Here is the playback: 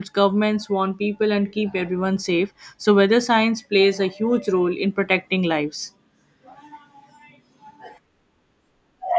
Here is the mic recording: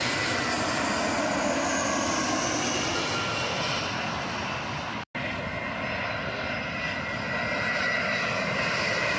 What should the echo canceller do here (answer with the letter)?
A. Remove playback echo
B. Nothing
B